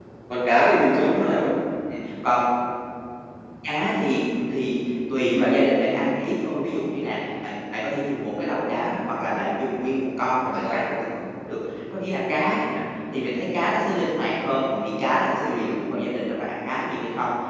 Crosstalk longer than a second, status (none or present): none